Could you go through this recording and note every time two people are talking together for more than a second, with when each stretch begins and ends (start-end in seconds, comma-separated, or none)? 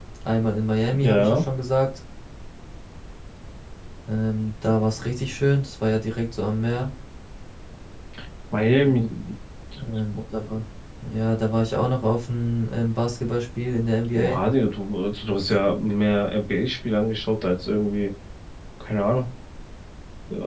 none